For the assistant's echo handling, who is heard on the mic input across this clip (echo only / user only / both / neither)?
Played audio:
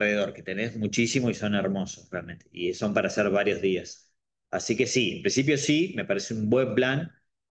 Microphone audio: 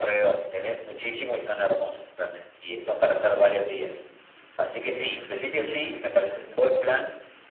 echo only